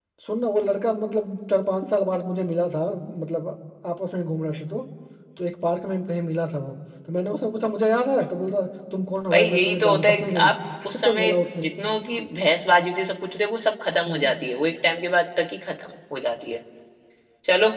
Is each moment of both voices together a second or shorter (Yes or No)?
No